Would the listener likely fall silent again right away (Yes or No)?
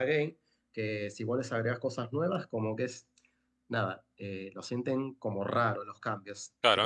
No